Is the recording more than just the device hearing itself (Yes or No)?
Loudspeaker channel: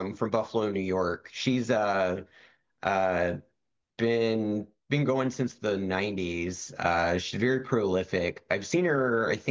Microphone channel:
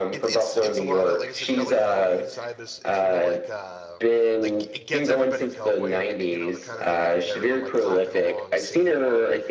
Yes